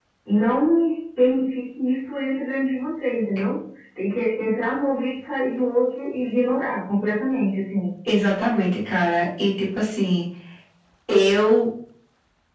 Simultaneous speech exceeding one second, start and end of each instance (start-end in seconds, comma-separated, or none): none